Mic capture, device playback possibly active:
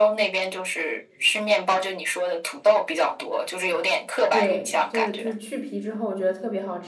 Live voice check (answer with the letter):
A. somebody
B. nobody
A